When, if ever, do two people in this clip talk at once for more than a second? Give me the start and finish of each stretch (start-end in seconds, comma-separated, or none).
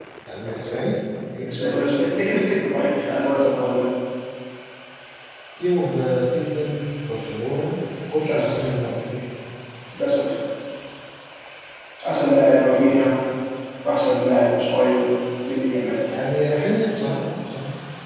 none